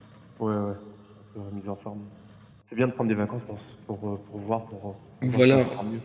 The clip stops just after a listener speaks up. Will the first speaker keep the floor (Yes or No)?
No